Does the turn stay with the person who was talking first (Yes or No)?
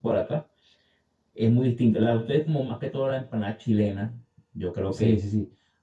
No